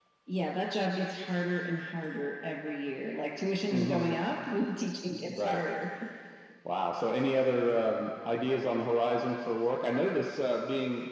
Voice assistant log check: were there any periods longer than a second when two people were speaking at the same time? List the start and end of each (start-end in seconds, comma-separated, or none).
none